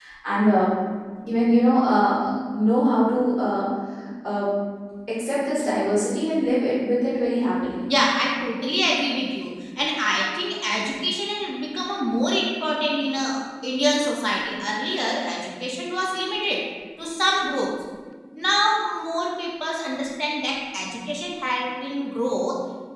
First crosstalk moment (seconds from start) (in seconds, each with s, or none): none